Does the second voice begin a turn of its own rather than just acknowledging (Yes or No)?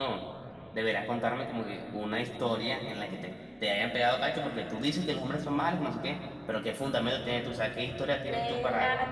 Yes